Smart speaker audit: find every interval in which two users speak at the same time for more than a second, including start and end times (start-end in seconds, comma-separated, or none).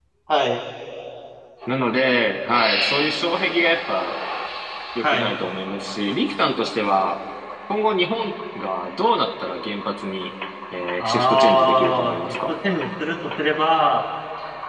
11.0-12.5